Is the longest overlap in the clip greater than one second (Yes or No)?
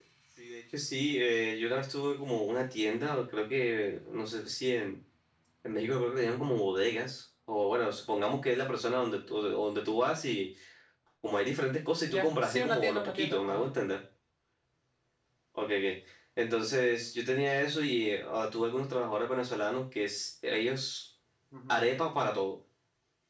Yes